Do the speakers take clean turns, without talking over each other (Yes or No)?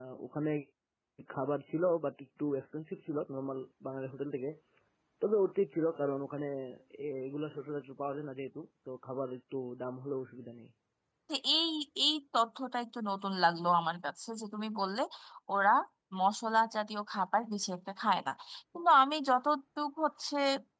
Yes